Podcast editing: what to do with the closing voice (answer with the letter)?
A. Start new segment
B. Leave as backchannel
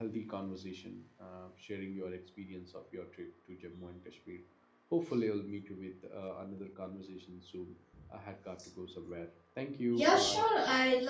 A